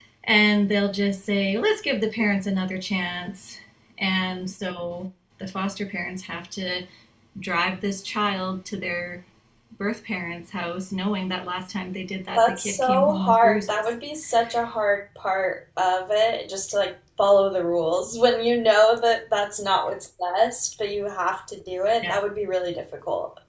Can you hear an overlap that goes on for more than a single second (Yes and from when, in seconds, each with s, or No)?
Yes, from 12.3 s